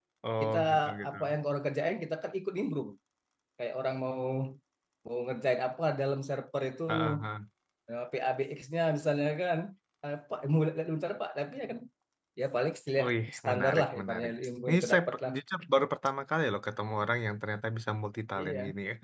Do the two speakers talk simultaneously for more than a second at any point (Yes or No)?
Yes